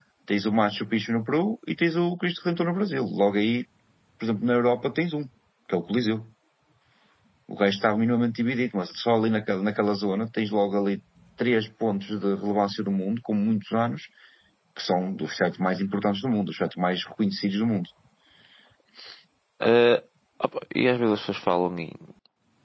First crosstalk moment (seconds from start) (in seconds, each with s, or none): none